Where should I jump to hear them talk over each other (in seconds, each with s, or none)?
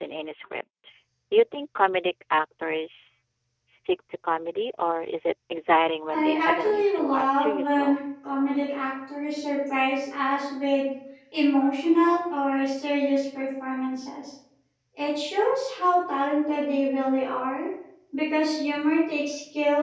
6.1 s